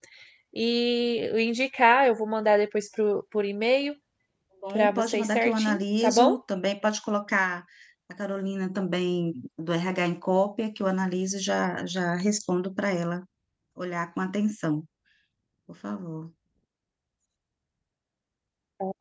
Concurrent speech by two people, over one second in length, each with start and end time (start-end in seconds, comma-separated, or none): 4.8-6.4